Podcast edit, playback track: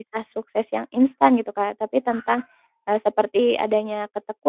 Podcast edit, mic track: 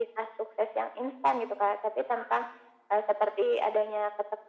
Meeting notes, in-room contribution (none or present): none